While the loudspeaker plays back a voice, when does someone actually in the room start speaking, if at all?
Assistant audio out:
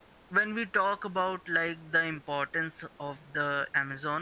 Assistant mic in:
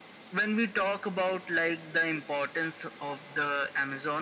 none

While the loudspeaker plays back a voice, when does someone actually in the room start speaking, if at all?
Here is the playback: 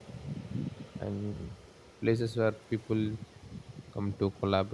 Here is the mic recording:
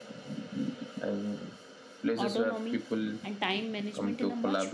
2.2 s

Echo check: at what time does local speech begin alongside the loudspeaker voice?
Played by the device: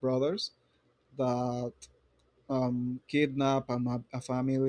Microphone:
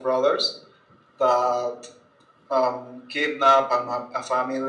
none

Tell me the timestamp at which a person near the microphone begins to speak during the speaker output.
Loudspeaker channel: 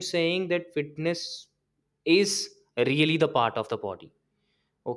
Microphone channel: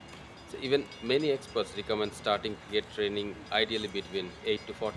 0.4 s

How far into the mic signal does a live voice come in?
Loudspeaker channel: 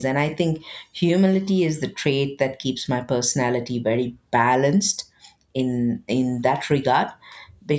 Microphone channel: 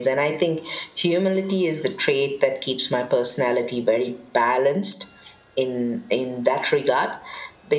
none

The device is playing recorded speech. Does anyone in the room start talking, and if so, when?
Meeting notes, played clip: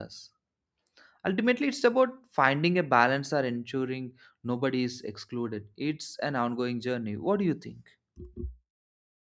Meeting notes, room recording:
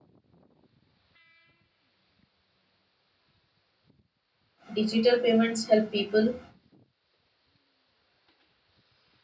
4.7 s

